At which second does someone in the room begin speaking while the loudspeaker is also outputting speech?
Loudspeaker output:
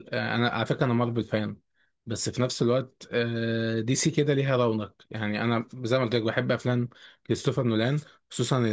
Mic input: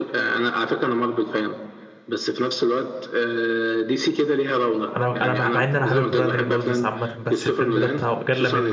5 s

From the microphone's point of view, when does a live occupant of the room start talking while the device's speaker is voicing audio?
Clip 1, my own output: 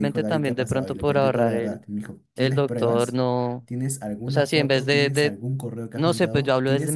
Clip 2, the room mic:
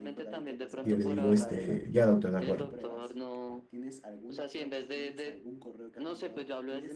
1 s

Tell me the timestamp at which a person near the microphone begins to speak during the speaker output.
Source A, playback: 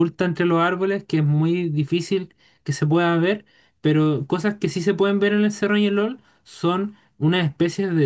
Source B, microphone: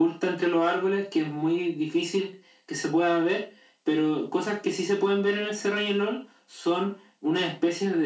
none

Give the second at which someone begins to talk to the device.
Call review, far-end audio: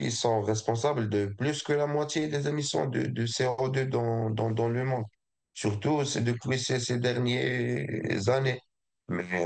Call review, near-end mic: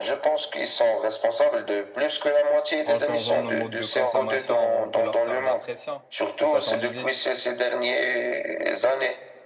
3 s

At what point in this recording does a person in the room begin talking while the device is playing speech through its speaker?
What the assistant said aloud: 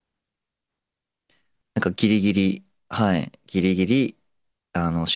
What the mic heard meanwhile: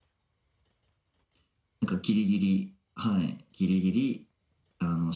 none

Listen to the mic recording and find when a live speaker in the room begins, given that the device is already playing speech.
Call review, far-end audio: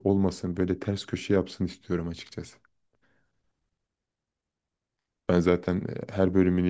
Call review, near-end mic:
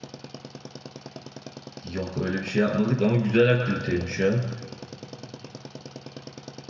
2 s

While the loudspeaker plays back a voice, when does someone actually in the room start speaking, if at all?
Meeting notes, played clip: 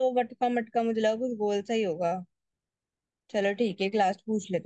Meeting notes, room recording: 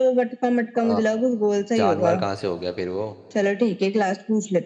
1 s

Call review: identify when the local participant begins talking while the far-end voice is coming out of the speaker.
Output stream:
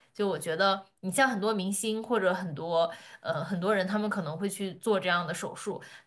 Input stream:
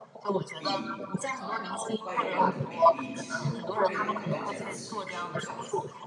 1 s

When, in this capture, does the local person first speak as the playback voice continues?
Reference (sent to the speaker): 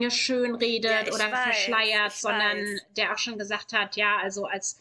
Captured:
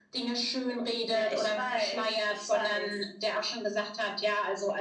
none

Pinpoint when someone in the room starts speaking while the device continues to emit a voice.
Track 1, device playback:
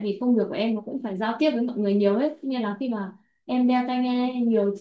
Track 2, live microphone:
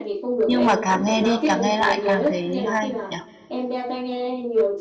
0 s

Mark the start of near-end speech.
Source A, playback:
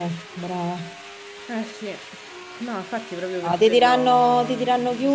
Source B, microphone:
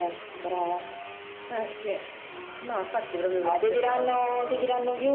none

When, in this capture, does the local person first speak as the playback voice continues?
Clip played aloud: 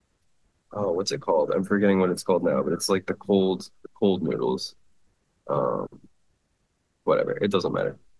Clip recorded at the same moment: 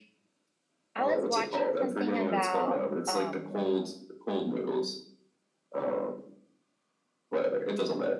1 s

